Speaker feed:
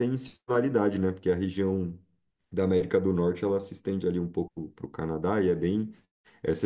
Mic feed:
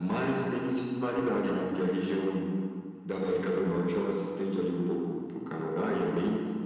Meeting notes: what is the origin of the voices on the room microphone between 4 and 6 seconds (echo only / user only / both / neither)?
echo only